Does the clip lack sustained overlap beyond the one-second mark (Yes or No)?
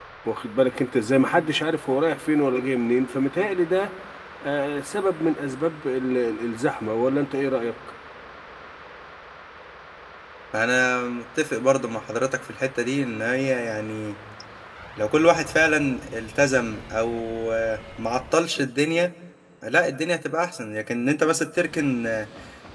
Yes